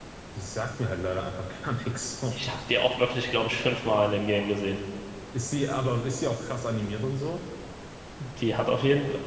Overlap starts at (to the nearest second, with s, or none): none